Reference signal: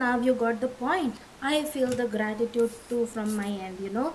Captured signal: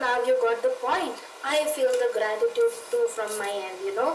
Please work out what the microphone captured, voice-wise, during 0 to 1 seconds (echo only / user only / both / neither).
echo only